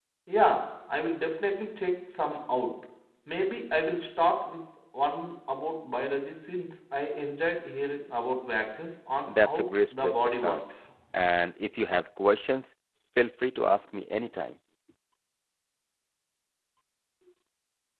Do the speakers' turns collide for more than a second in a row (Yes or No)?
Yes